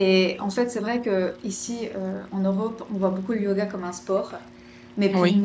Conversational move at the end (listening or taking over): listening